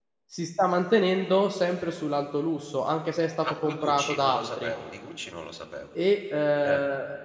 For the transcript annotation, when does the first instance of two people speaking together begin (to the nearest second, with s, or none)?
3 s